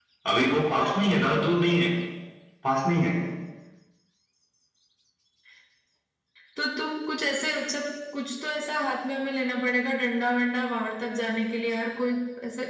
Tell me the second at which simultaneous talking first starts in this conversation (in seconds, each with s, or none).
none